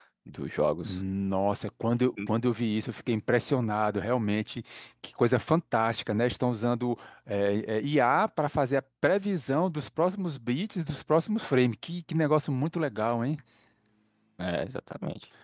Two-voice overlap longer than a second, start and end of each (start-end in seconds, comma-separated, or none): none